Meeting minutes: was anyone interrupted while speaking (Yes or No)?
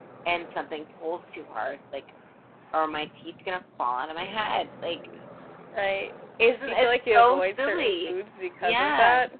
Yes